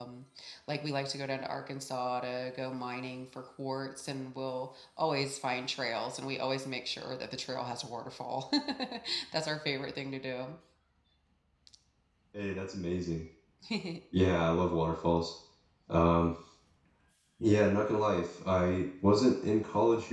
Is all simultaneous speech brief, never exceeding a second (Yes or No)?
Yes